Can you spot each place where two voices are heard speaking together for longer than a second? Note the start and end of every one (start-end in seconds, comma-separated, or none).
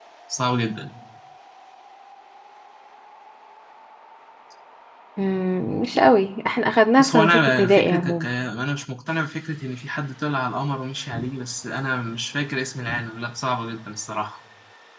7.0-8.2